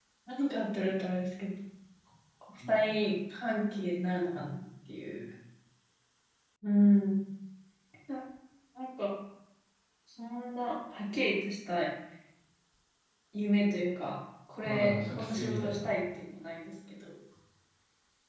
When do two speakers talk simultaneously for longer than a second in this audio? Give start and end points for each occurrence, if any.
14.6-15.9

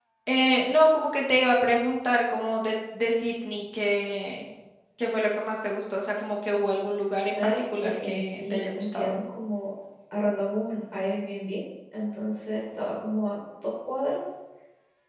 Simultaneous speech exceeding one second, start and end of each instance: 7.4-9.2

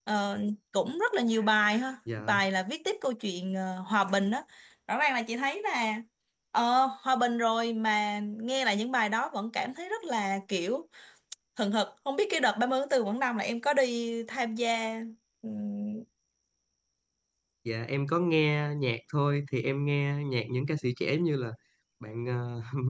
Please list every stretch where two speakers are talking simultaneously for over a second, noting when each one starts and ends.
none

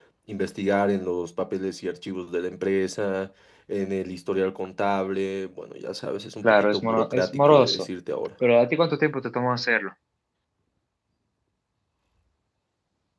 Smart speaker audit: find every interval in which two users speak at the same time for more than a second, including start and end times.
6.4-7.9

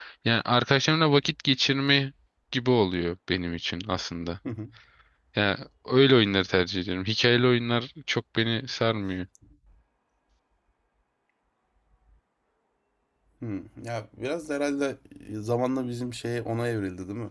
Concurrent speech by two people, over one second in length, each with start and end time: none

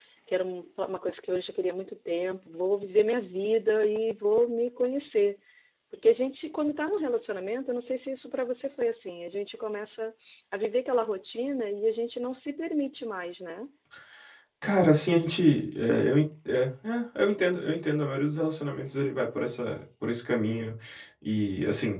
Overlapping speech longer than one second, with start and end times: none

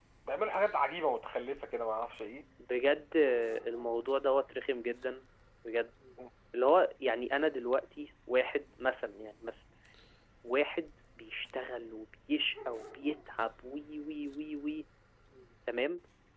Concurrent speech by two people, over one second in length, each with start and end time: none

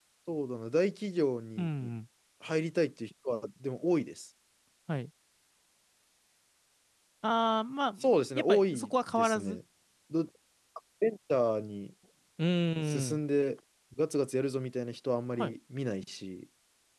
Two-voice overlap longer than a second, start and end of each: 8.3-9.6

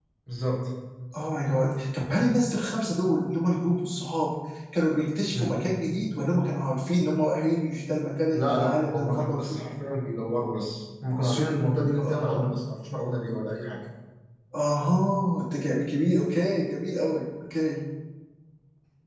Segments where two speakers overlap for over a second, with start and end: 8.3-9.6

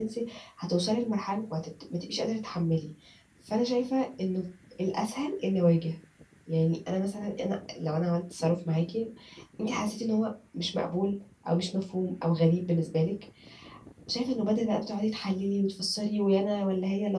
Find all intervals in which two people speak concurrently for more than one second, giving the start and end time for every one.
none

